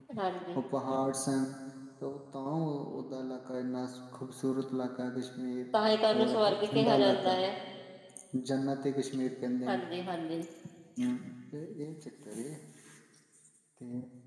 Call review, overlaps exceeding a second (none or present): present